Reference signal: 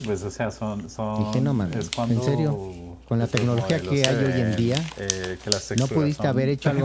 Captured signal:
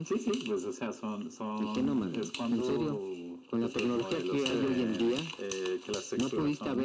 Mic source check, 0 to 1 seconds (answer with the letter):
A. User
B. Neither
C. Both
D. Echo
D